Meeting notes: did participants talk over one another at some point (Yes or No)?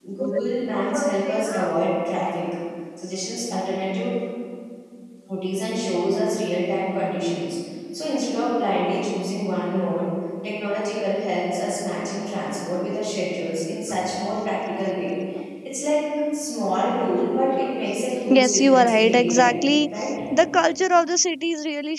Yes